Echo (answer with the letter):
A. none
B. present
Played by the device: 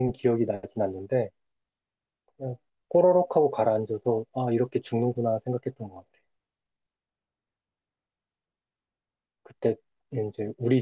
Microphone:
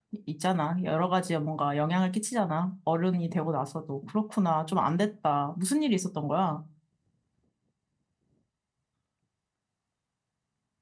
A